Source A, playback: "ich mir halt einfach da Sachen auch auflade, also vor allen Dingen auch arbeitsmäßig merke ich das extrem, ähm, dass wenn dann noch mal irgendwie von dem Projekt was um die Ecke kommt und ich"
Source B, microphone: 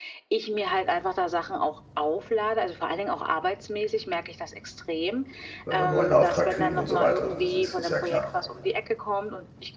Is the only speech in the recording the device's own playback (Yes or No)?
No